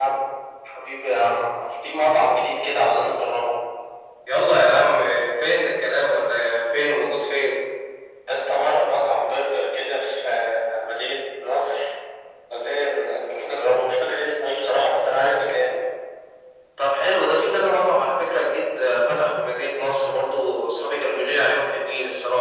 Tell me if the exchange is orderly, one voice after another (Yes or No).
Yes